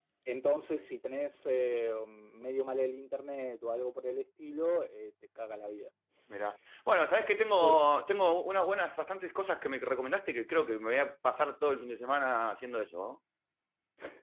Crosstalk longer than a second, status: none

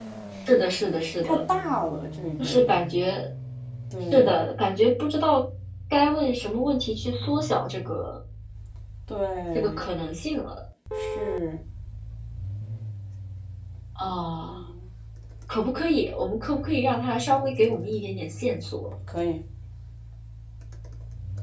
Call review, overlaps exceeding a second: none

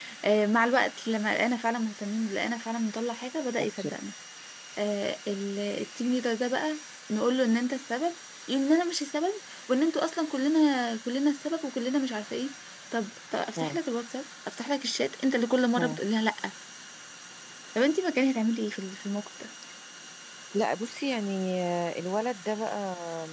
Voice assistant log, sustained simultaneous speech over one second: none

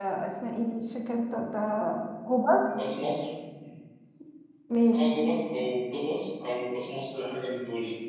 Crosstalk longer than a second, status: none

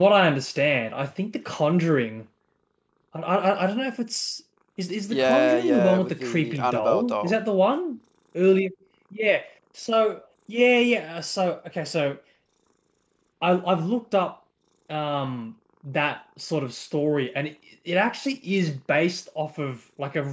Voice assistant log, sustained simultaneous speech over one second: present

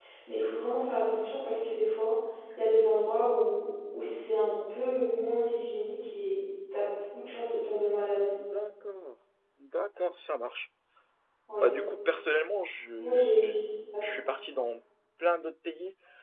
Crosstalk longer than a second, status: none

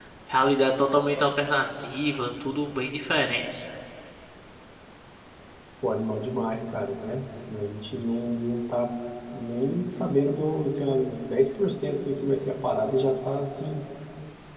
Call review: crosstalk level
none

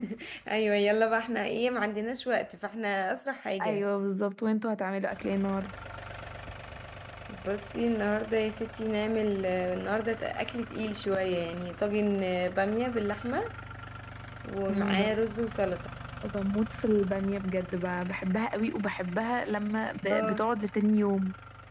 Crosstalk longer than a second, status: none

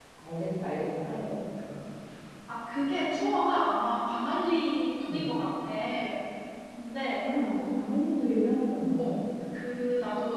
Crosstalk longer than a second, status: none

